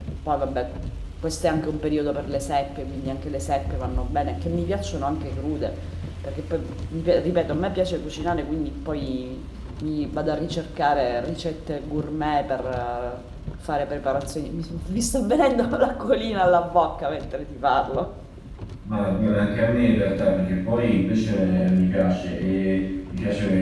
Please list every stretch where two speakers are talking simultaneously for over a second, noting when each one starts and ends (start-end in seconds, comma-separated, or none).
none